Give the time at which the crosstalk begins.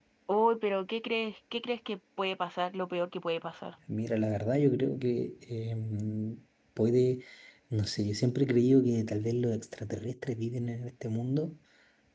none

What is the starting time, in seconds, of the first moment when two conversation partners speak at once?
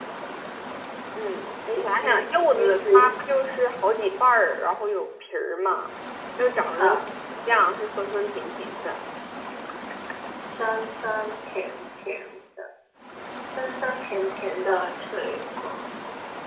1.7 s

